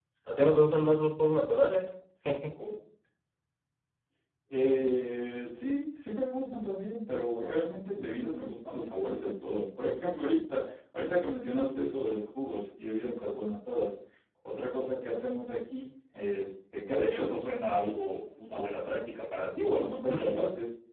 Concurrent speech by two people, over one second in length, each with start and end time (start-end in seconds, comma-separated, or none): none